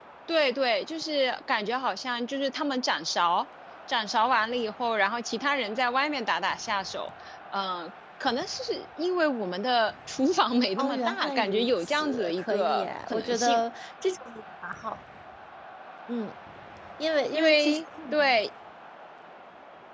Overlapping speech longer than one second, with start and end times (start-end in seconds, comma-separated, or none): 10.8-13.6